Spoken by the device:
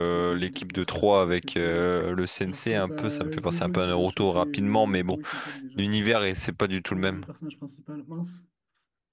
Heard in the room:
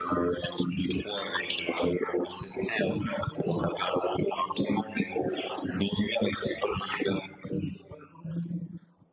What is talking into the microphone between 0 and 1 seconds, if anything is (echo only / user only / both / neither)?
echo only